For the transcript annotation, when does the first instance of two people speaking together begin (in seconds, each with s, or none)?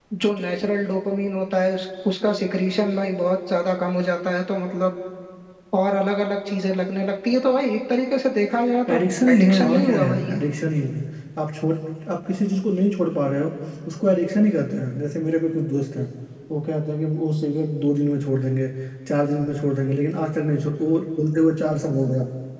8.9 s